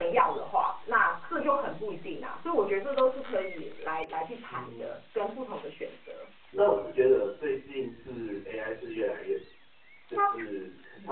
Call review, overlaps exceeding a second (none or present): none